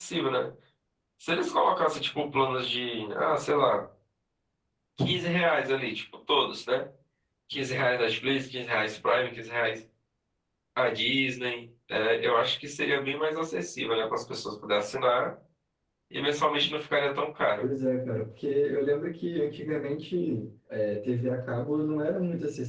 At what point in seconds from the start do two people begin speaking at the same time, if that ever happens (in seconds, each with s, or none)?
none